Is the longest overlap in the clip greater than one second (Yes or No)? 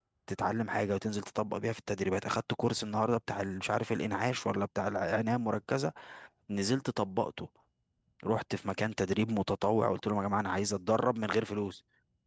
No